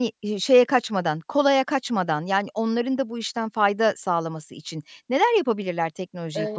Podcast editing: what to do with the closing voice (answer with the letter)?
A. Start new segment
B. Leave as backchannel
A